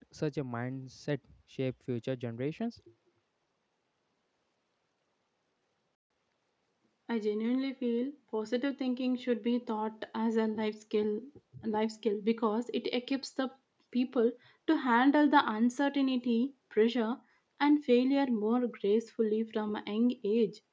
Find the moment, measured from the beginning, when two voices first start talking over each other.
none

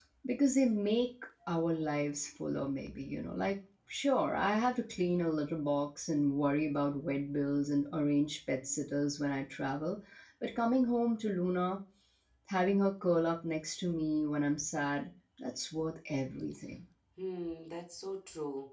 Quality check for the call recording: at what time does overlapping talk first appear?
none

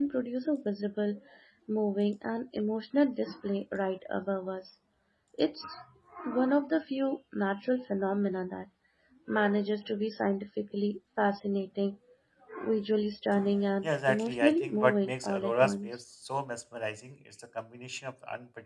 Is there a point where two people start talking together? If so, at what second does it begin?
14 s

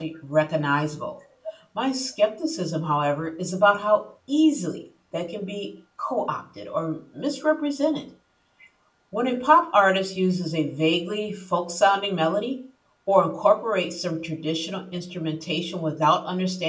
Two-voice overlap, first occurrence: none

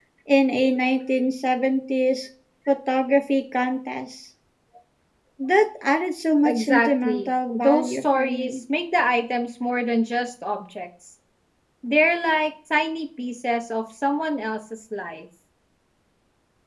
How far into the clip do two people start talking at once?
6 s

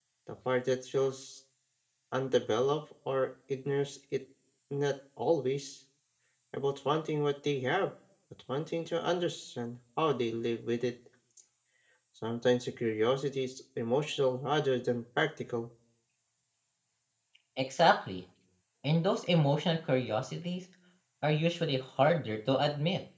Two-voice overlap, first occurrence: none

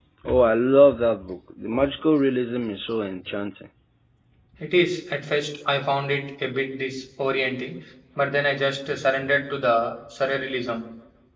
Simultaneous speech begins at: none

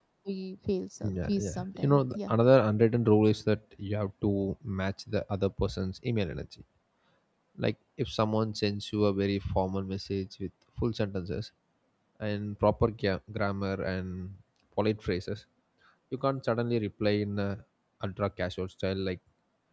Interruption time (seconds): 1 s

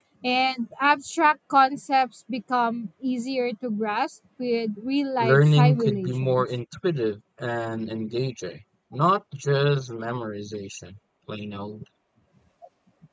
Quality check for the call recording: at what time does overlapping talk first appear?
5 s

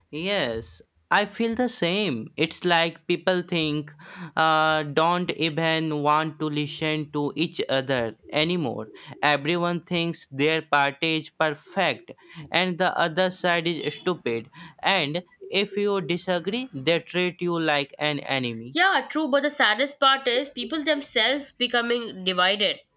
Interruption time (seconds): none

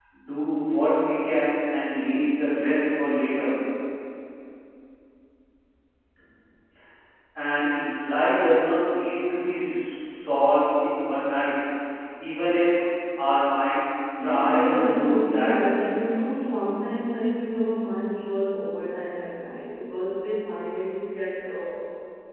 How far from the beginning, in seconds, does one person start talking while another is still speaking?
14 s

